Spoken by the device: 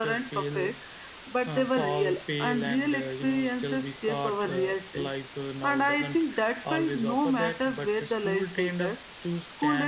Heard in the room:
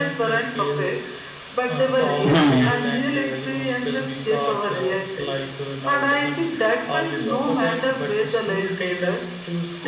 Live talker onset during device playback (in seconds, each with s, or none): 2.2 s